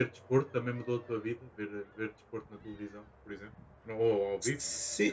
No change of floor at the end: No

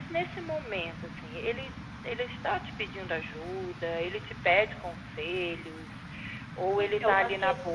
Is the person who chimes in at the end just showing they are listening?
No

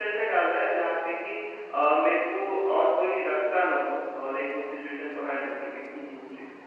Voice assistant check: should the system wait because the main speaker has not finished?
No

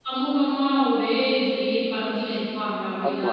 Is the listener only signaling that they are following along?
No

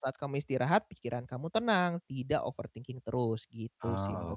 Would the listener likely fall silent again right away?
No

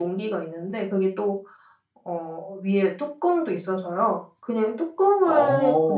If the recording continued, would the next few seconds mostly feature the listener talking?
No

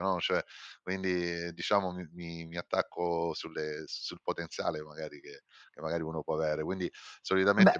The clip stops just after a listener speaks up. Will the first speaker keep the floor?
Yes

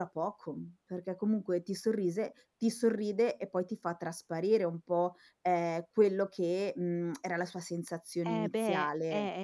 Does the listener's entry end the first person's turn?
Yes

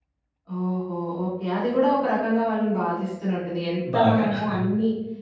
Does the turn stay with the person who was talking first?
Yes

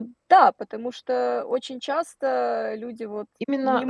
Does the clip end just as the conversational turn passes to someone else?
Yes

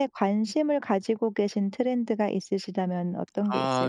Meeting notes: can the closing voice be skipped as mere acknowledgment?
No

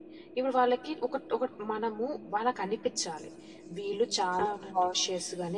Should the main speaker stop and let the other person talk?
No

